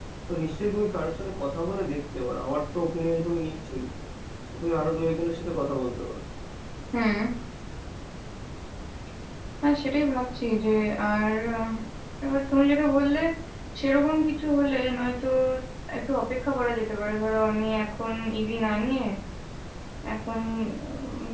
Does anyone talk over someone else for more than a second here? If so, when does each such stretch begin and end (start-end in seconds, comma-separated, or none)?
none